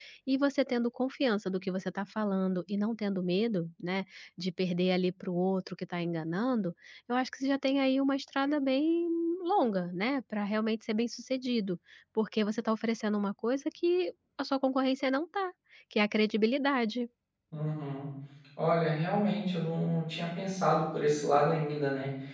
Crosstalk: none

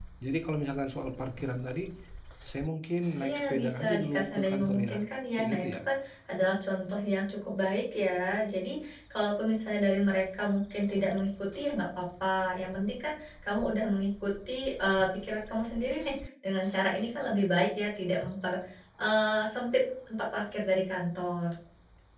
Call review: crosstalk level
present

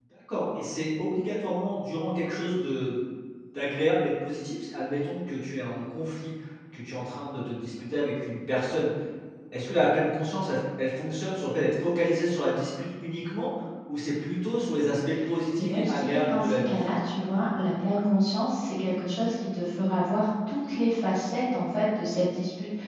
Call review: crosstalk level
present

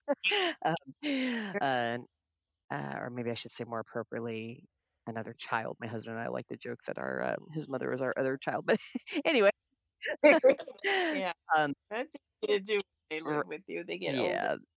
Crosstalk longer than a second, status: none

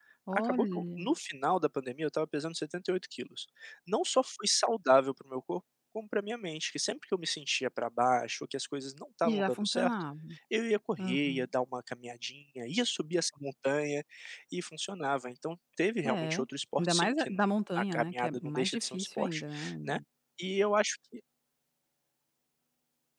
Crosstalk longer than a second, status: present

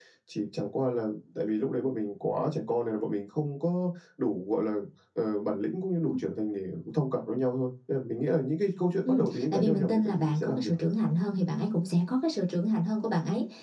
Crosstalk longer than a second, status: present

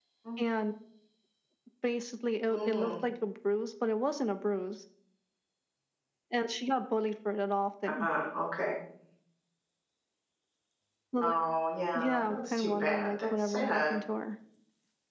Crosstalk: present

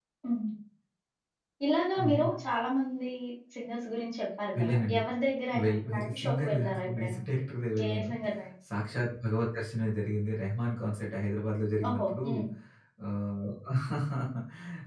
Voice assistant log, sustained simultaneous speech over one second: present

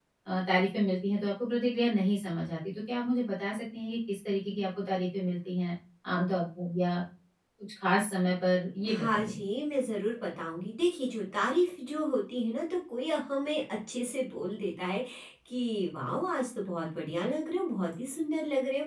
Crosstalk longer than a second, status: none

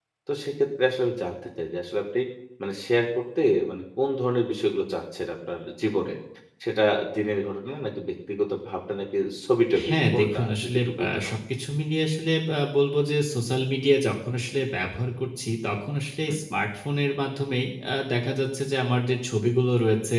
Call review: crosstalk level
present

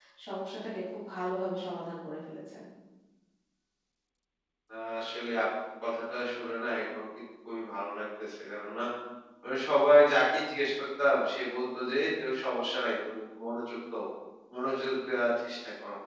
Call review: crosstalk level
none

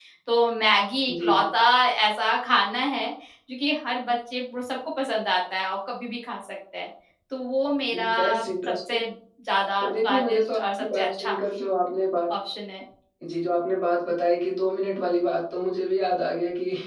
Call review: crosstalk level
present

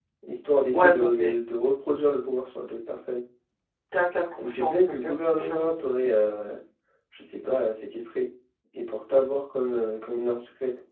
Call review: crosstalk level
present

